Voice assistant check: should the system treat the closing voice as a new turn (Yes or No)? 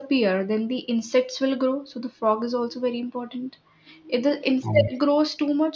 No